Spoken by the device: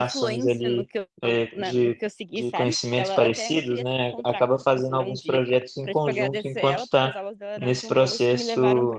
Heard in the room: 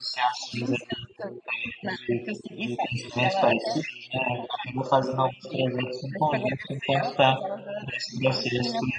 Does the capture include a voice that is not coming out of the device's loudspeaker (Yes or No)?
No